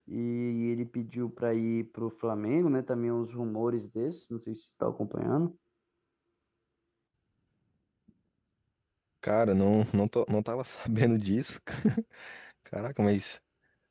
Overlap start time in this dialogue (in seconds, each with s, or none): none